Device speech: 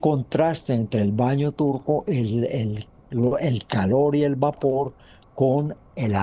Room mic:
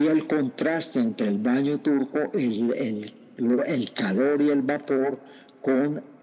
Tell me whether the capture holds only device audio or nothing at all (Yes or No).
Yes